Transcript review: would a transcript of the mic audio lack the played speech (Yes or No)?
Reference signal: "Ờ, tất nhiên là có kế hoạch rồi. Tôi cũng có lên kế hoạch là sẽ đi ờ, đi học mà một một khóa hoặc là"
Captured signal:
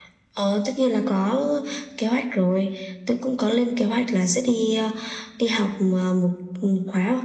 No